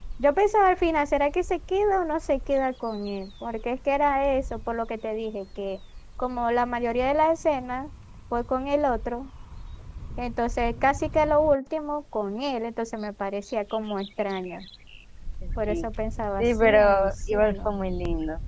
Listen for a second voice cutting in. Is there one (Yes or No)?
Yes